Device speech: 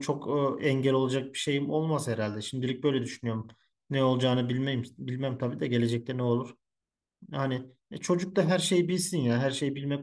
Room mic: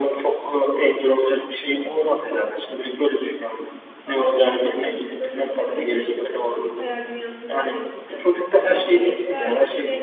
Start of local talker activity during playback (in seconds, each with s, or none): 4.0 s